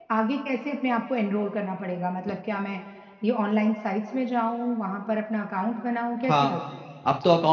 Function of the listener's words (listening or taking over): taking over